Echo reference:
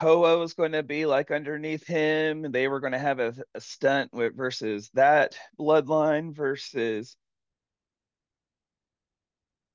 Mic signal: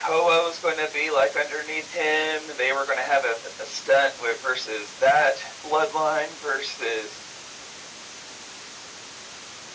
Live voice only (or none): none